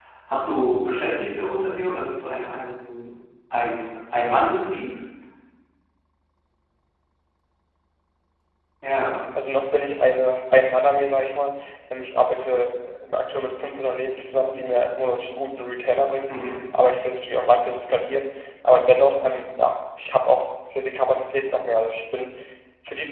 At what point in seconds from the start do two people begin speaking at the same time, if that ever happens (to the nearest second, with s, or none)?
none